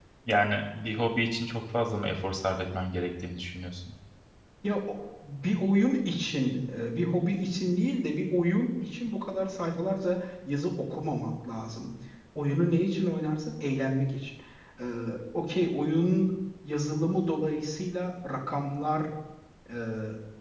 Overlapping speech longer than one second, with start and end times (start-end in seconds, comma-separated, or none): none